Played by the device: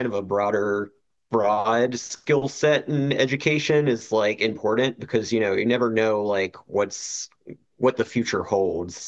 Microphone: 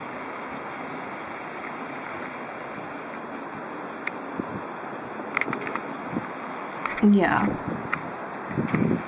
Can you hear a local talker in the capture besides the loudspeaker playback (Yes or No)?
Yes